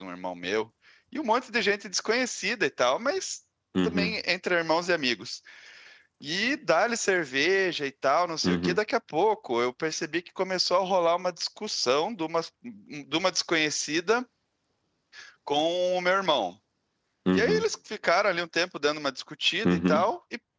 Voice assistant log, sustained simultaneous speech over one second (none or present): none